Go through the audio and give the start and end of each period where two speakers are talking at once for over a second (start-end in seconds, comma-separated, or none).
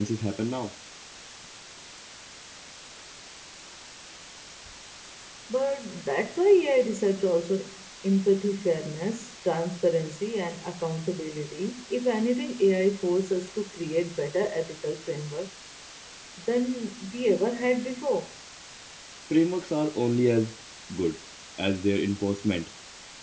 none